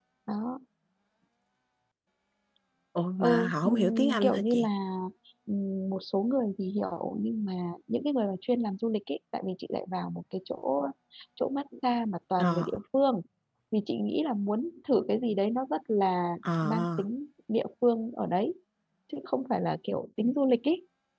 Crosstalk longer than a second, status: present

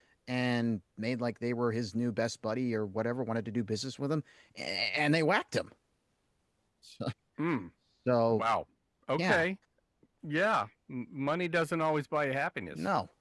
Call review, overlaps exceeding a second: none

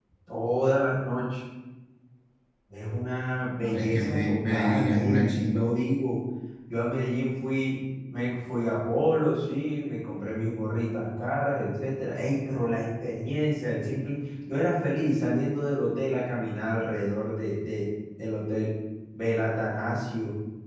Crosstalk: present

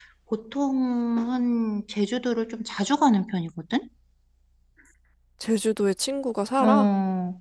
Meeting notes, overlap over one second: none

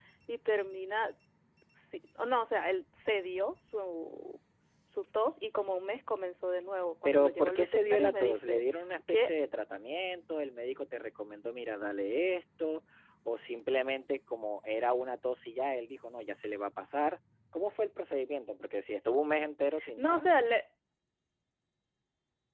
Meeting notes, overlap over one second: present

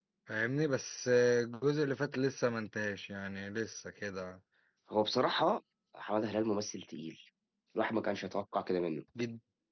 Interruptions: none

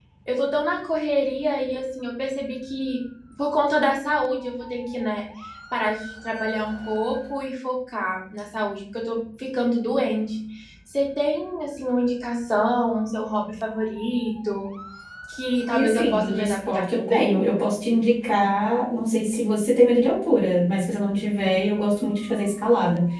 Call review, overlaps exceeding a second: present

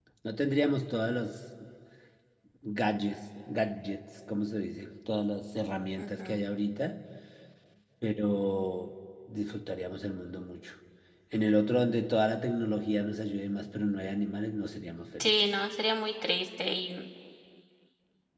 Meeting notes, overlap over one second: none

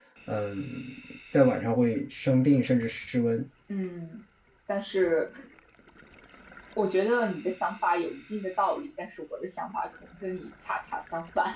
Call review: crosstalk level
none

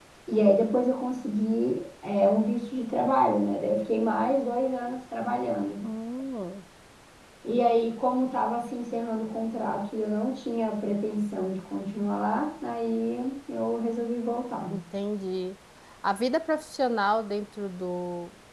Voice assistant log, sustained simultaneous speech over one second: none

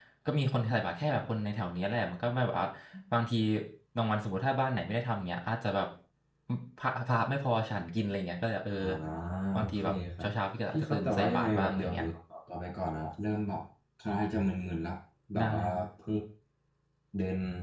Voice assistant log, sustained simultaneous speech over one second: present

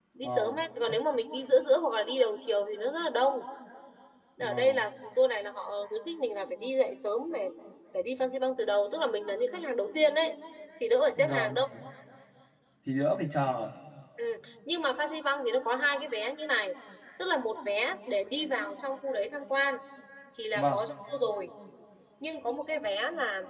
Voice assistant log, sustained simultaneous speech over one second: none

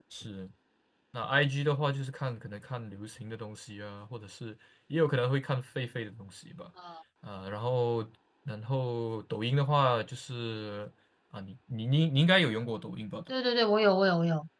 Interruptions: none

